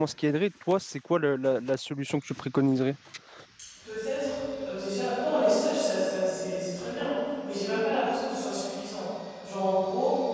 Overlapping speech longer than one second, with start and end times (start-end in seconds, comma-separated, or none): none